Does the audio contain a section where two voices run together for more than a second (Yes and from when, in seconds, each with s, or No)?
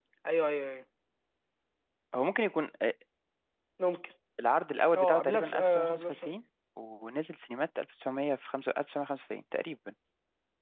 Yes, from 5.0 s